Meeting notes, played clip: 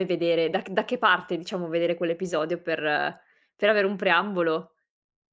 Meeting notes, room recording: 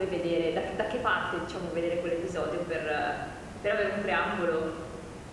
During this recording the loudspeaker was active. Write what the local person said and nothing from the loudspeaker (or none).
none